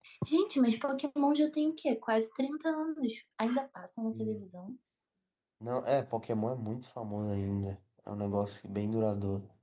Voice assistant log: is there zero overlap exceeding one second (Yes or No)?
Yes